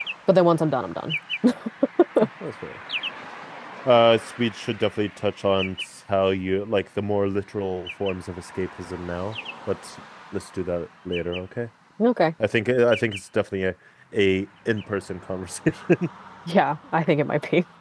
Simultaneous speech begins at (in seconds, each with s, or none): none